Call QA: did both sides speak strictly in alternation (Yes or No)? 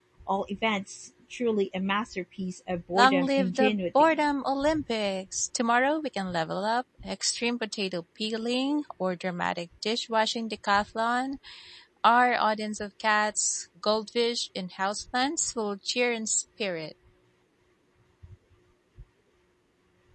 No